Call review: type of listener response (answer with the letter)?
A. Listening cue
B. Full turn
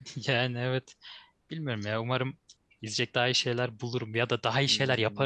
B